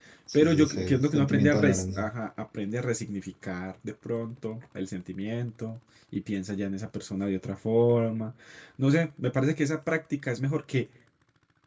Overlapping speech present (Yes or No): Yes